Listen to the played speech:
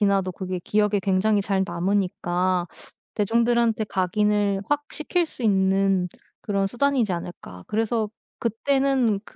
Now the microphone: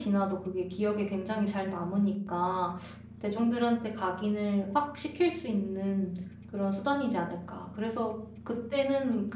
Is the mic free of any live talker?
Yes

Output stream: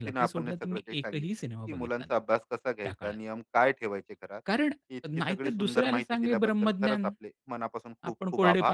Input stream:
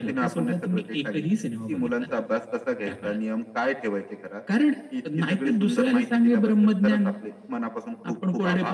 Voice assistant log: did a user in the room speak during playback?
No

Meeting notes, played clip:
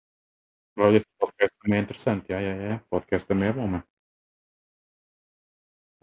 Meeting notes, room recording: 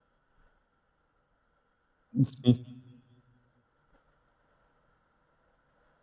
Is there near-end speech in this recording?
Yes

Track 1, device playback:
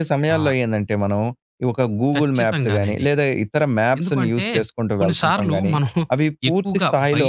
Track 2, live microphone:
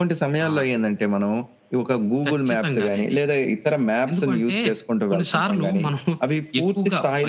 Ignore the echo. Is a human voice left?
No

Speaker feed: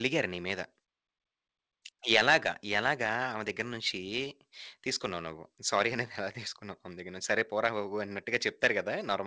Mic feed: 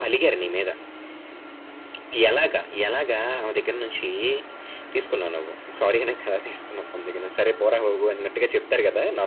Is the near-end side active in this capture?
No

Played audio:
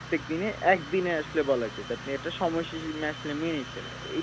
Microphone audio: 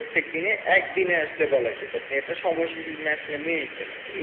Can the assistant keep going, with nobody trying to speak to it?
Yes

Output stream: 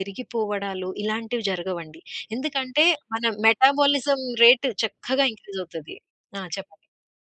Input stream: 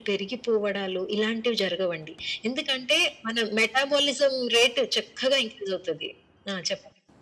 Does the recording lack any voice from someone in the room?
Yes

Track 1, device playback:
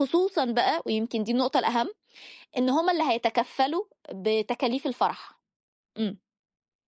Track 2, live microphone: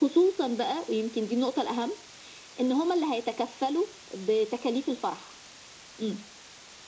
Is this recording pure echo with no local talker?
Yes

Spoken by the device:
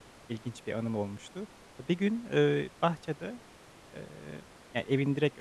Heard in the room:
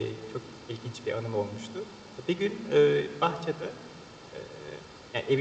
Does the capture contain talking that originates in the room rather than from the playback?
No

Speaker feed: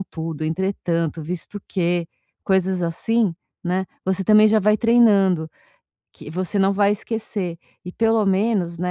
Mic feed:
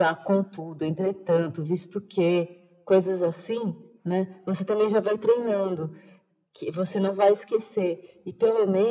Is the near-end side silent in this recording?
Yes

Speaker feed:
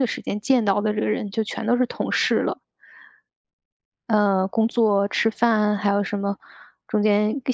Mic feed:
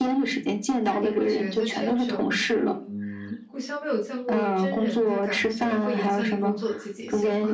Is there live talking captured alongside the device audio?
Yes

